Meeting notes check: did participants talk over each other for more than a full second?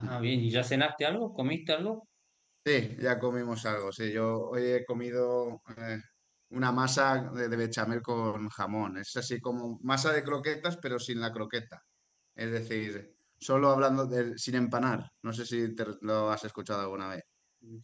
No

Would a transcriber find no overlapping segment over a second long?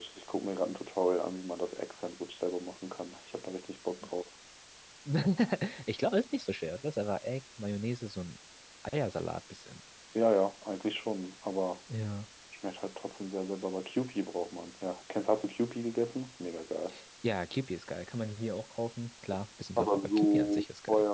No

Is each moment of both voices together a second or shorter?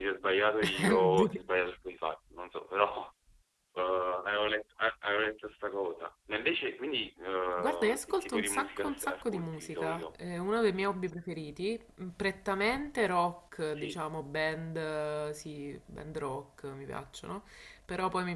No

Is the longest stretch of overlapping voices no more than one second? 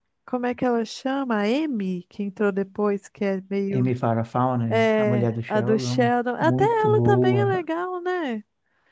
No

